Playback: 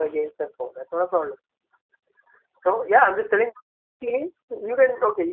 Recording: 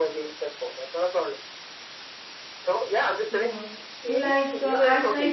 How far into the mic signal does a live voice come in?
3.3 s

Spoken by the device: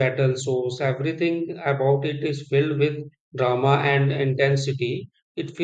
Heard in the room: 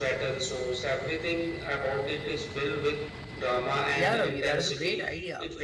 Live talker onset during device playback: 3.9 s

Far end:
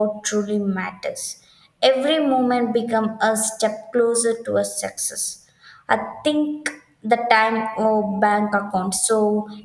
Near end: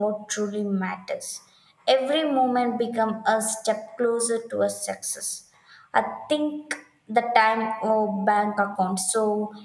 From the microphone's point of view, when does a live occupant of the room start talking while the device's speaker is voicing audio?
none

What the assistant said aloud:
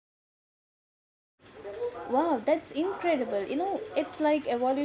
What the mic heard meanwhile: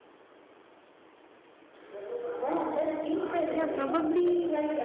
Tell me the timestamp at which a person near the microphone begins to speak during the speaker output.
3.5 s

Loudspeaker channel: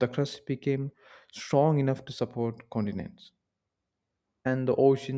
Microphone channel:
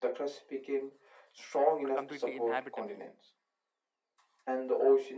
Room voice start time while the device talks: 1.8 s

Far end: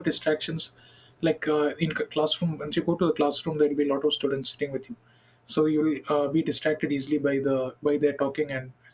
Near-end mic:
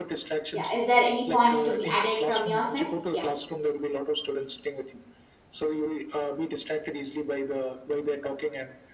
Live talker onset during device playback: 0.6 s

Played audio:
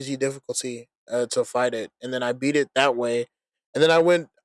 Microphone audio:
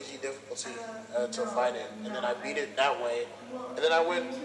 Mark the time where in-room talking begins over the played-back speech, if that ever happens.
0.6 s

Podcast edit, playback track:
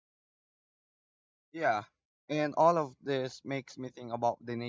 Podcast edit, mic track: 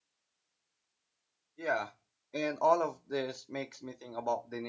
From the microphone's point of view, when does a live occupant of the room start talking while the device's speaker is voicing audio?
none

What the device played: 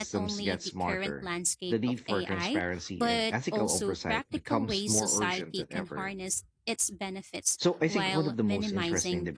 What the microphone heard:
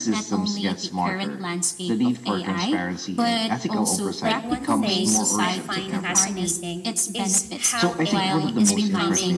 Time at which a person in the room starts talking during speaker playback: 4.2 s

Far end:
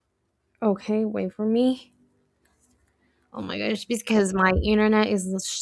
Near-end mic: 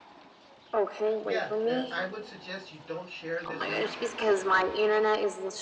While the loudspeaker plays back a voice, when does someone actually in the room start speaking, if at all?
1.2 s

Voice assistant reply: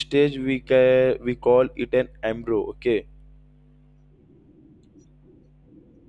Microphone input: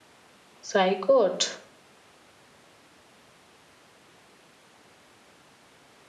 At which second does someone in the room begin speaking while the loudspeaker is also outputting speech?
0.7 s

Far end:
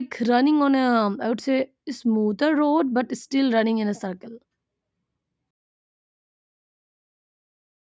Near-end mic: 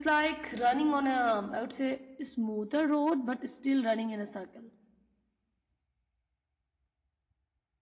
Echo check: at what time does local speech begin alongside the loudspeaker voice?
none

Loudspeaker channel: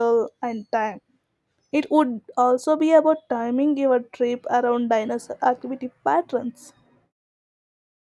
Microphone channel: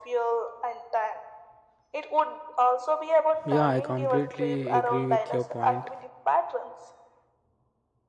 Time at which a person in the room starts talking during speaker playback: 3.4 s

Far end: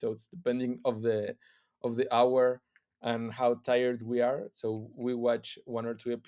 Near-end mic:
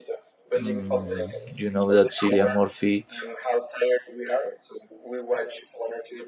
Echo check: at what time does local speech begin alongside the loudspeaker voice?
0.6 s

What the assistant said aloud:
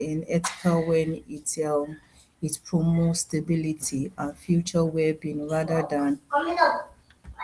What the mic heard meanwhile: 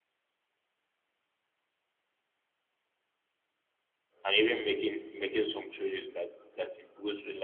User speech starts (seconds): 4.2 s

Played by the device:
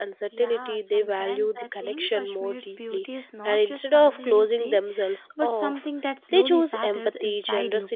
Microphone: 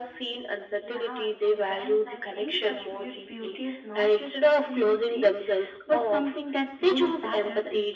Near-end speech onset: none

